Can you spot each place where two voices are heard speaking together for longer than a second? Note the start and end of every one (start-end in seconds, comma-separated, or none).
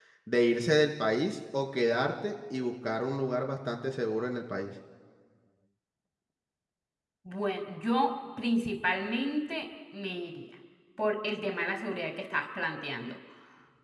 none